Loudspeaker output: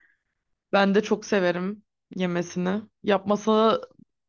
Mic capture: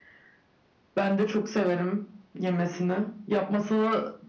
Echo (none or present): present